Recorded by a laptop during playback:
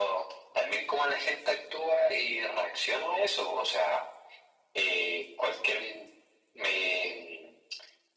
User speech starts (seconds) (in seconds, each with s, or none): none